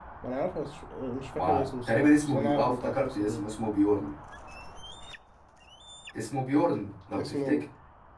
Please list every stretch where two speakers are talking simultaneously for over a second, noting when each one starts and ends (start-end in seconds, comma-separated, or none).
1.4-3.4